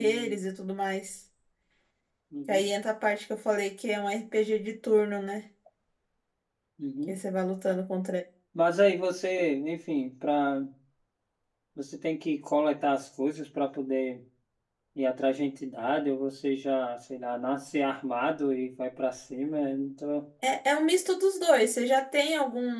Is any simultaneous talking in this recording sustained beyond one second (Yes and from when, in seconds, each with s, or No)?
No